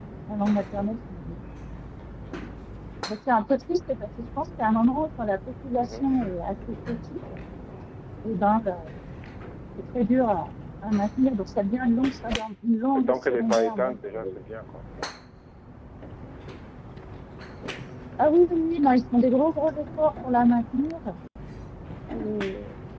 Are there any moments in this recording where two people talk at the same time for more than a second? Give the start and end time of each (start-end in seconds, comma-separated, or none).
12.9-14.4